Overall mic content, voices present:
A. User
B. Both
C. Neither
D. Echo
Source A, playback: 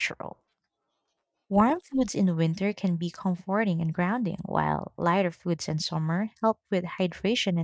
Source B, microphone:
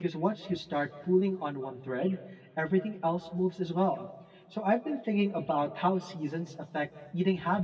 A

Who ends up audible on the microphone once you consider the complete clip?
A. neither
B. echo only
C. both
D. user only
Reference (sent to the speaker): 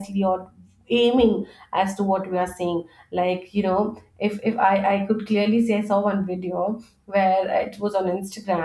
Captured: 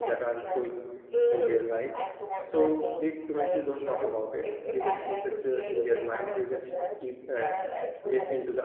C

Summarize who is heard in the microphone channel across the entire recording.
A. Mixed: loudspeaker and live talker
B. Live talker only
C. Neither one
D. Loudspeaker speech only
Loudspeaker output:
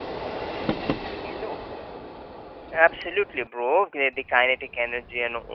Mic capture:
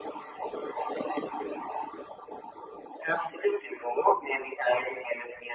D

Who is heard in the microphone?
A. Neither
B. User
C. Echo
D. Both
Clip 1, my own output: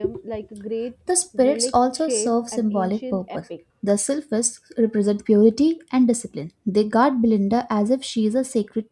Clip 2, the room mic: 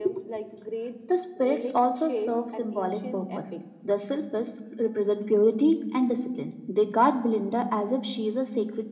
C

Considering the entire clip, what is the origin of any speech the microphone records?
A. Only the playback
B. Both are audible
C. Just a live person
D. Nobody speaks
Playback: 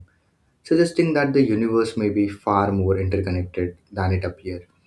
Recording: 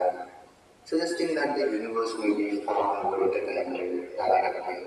A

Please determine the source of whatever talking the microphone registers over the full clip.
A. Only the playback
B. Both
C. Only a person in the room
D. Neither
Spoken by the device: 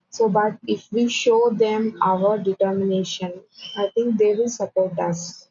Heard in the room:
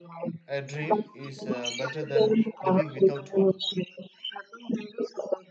B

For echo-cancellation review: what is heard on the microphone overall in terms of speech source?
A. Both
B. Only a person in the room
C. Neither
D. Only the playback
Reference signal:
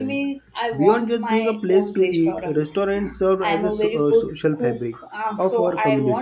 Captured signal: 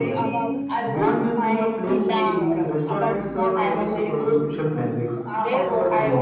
A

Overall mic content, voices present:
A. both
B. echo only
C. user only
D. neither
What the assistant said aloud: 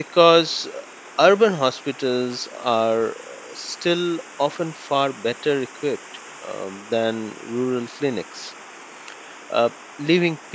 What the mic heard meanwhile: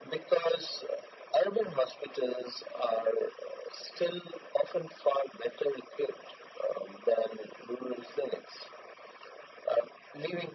B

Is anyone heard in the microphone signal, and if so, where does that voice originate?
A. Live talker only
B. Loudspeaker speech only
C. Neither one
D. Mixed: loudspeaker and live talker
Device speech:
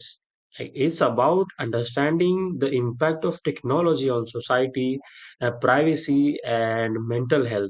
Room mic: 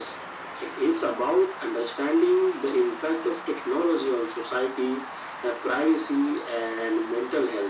B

